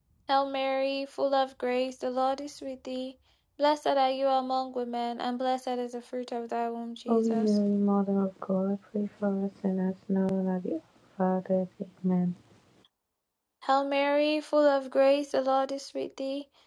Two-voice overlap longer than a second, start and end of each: none

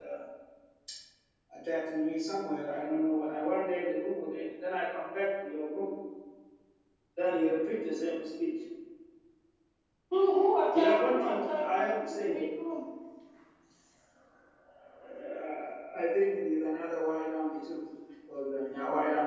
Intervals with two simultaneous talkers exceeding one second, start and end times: 10.7-12.4

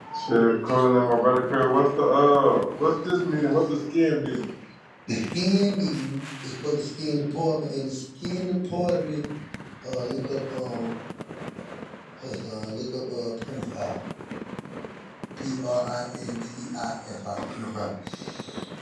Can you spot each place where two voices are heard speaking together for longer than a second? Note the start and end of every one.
none

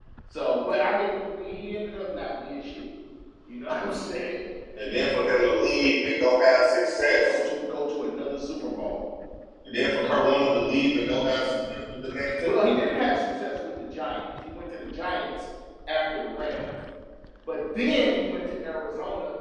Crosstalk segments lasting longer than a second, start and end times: none

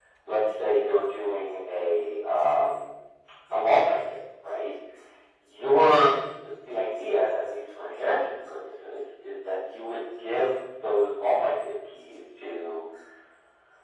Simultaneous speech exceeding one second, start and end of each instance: none

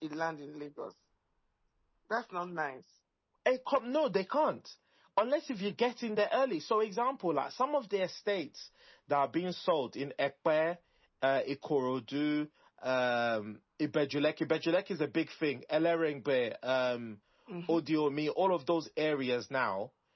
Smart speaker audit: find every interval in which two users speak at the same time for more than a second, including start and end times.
none

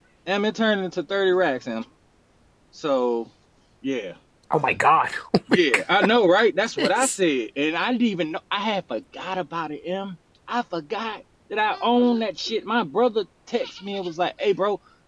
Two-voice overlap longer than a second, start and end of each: none

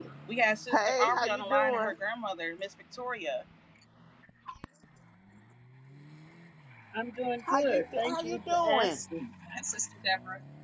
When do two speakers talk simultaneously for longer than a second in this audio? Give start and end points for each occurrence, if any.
0.7-1.9, 7.5-9.0

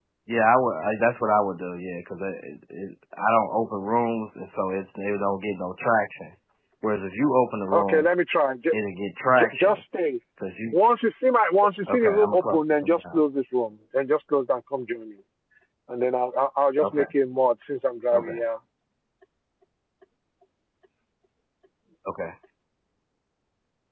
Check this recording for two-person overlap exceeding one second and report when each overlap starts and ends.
11.9-13.2

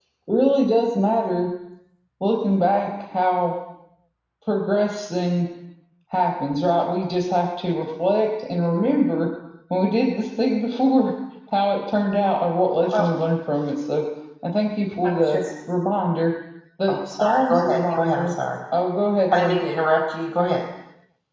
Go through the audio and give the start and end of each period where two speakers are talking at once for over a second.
16.9-18.3

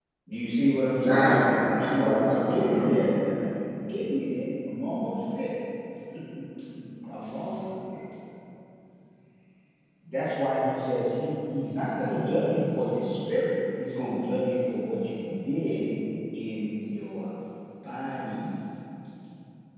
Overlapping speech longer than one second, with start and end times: 1.0-3.2

